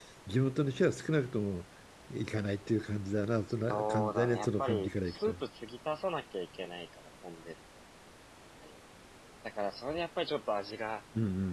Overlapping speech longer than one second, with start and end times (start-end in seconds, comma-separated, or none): 3.5-5.4